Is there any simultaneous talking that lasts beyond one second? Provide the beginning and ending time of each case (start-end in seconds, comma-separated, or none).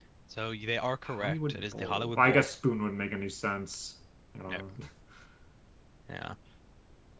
1.1-2.5